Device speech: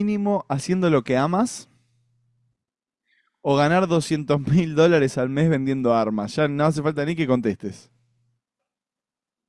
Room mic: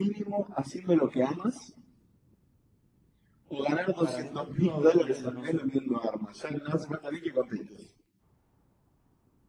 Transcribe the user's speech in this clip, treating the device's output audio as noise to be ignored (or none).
para agentes privados, ponele no sé,